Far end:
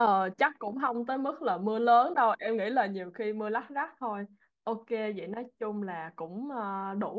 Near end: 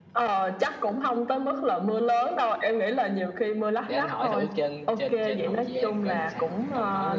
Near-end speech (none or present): present